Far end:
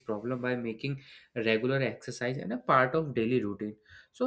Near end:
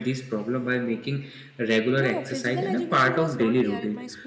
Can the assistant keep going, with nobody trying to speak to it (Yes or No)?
No